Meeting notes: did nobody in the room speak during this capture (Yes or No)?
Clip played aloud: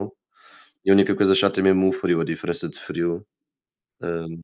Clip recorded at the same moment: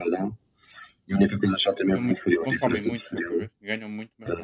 No